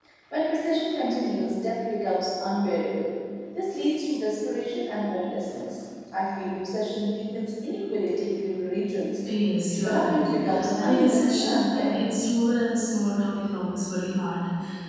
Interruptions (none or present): present